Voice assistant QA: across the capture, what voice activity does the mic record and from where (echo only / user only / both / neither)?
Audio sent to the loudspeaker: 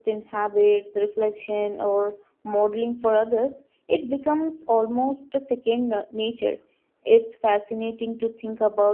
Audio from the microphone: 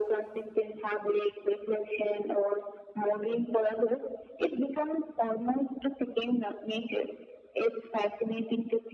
echo only